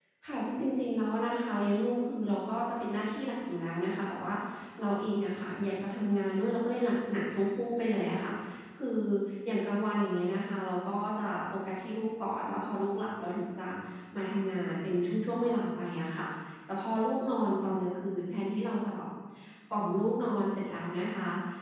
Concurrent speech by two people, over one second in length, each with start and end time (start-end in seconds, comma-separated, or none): none